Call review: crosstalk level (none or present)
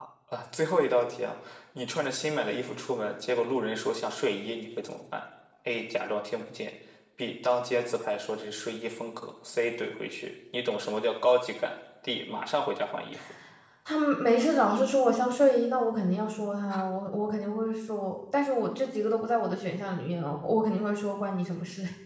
none